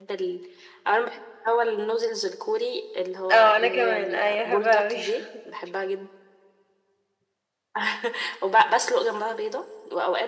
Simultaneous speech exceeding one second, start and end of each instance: 3.3-5.0

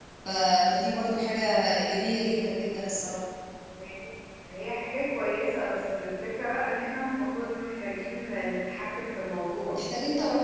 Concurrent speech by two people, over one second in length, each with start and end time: none

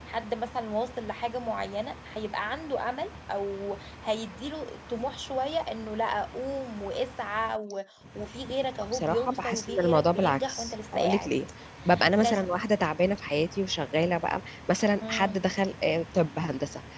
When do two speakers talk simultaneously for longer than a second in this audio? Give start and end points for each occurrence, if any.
8.9-11.3

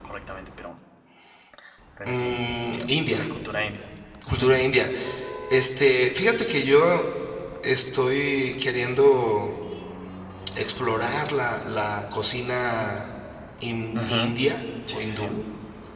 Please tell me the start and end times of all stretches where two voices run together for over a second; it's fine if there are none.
none

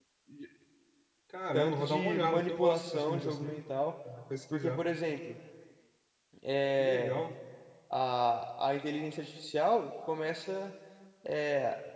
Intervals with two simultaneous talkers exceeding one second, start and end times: 1.6-3.6

